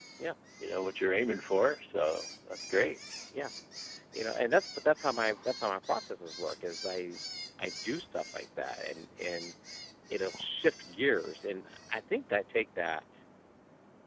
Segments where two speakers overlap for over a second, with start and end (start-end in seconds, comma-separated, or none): none